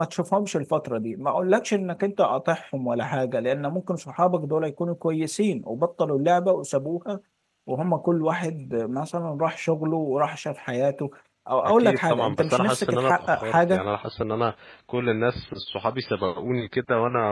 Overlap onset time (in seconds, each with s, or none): 11.6 s